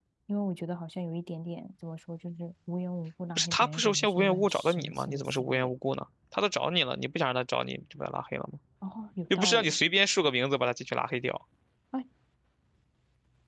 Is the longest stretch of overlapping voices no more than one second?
No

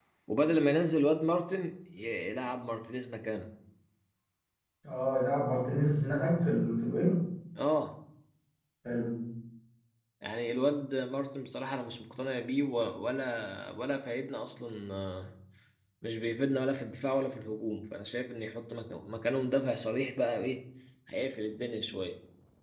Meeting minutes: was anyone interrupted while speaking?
No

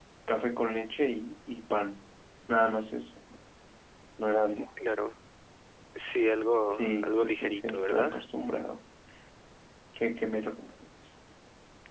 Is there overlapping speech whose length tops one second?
Yes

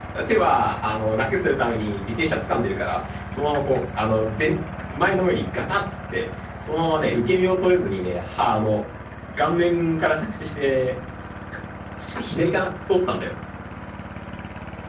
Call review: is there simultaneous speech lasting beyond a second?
No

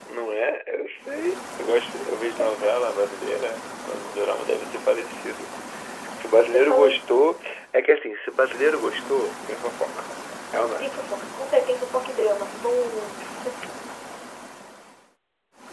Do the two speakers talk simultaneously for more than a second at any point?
No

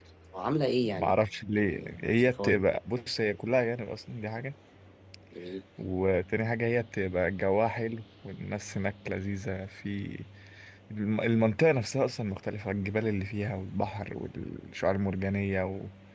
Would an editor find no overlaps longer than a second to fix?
Yes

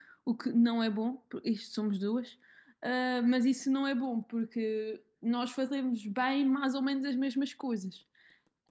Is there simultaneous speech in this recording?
No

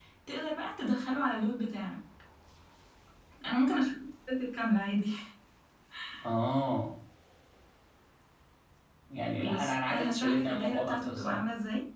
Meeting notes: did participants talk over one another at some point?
Yes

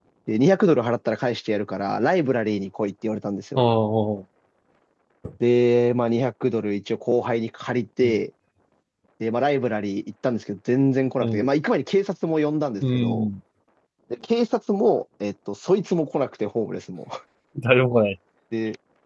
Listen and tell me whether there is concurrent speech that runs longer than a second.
No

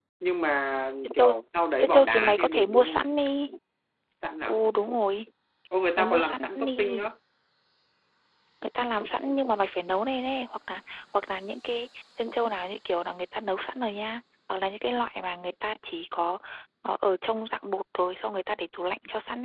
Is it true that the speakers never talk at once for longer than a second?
No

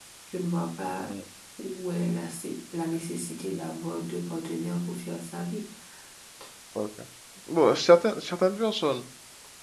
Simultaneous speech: No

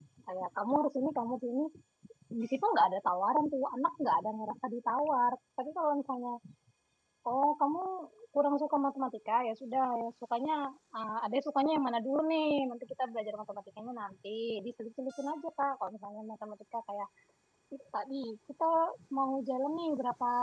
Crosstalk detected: No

